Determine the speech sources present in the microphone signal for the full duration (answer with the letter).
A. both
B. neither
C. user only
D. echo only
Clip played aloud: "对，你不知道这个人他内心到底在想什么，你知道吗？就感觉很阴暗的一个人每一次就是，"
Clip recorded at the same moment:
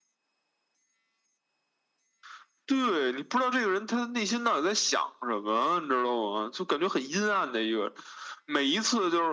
D